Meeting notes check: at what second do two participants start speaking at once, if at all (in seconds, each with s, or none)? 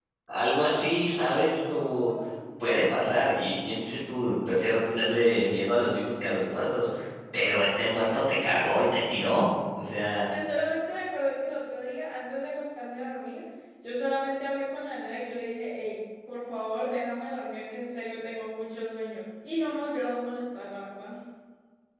none